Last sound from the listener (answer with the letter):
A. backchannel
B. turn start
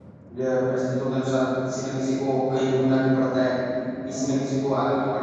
A